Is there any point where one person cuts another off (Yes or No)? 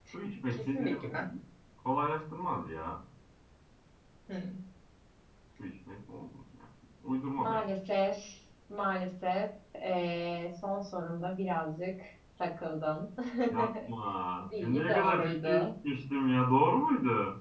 Yes